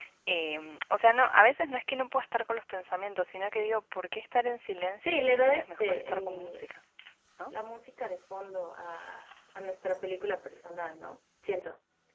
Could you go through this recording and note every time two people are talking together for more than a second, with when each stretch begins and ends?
5.0-6.7

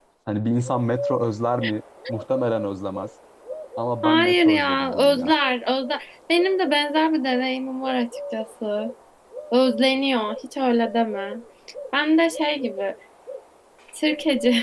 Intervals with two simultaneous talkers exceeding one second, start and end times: 4.0-5.3

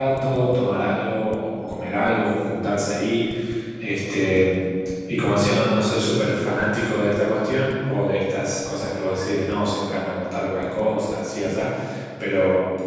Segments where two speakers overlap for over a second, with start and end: none

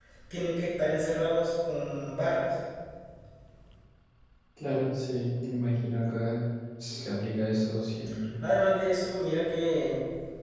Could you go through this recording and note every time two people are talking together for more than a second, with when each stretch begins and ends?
none

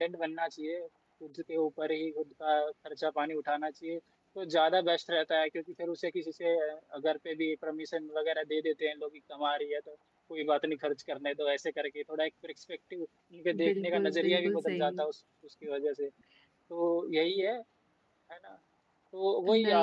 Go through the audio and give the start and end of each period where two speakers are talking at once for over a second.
13.7-14.9

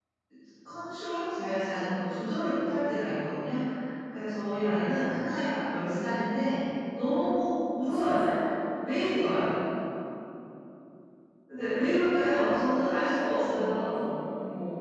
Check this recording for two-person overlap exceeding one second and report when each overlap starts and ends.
12.3-14.0

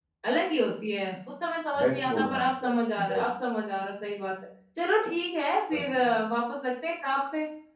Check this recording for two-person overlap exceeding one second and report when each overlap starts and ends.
1.8-3.2

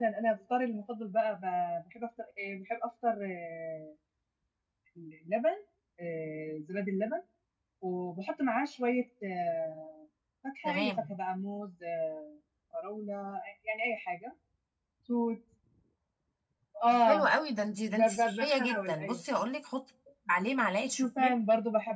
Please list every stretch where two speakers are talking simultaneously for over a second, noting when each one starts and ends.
17.9-19.2

